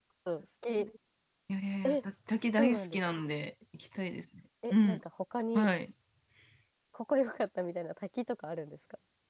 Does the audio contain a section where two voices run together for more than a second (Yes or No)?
No